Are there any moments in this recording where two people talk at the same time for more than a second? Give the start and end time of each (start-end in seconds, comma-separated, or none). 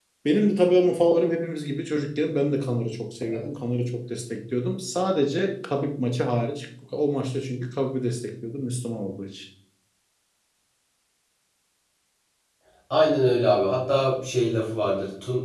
none